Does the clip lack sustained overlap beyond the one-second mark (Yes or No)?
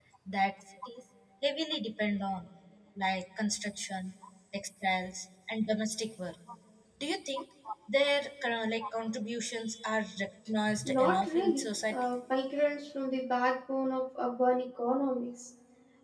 No